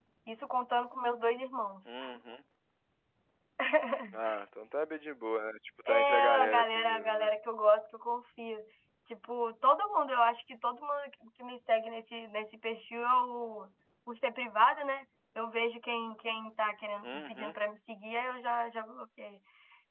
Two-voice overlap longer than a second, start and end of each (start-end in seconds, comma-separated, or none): 5.9-7.3